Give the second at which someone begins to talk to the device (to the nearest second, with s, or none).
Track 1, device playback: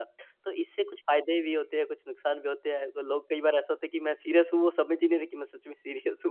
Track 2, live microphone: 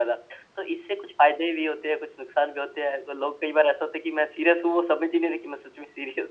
none